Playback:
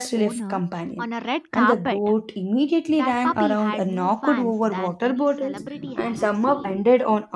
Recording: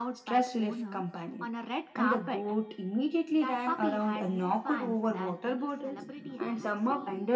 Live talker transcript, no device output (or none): none